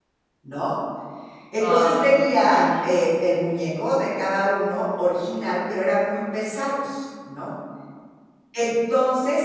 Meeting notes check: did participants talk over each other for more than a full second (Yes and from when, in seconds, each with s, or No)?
Yes, from 1.6 s